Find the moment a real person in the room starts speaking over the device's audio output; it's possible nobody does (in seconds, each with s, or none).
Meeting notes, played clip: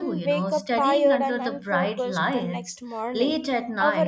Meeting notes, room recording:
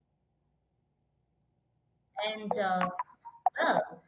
2.2 s